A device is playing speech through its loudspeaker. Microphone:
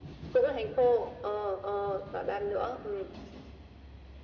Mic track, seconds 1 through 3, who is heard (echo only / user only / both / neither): echo only